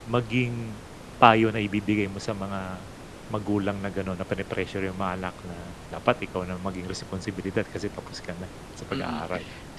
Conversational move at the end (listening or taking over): taking over